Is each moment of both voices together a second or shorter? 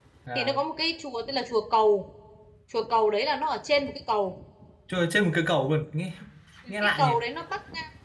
Yes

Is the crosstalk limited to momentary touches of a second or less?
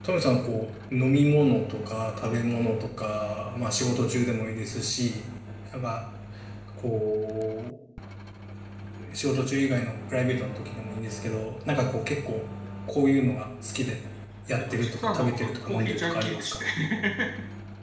No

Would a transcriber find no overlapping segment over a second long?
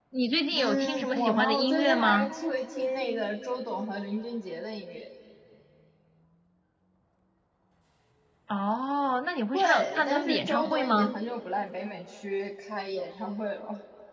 No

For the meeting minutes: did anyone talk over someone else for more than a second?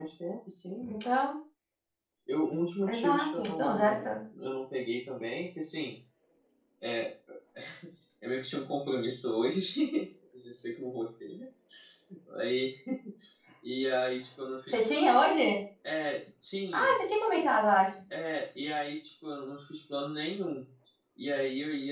Yes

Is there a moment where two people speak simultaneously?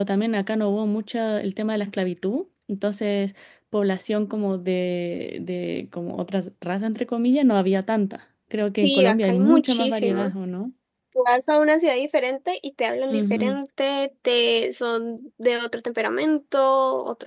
Yes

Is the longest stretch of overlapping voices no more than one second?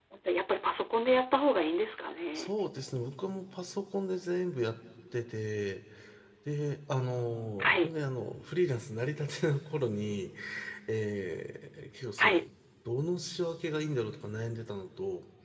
Yes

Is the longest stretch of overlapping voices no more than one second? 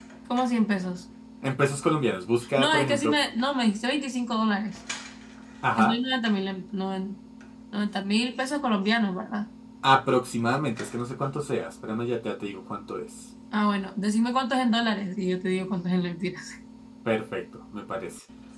Yes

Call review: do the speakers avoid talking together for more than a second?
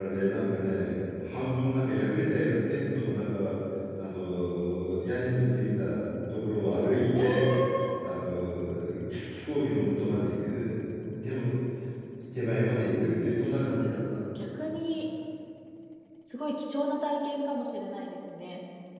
Yes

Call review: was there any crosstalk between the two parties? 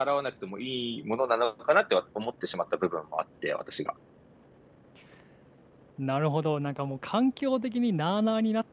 No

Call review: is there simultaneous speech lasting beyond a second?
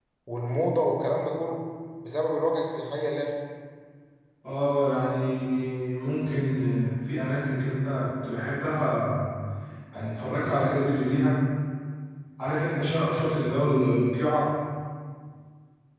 No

